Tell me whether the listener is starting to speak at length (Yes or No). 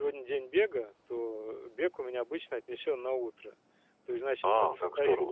Yes